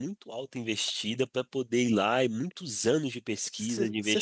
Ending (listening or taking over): taking over